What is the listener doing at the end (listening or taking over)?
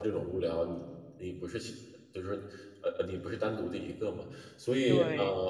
taking over